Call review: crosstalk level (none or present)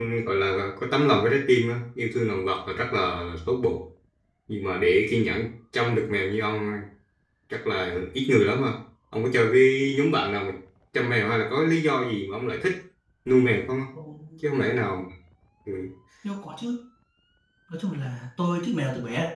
none